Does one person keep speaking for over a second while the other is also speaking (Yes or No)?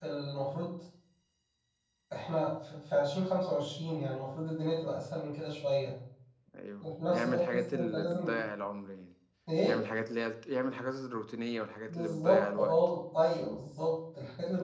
Yes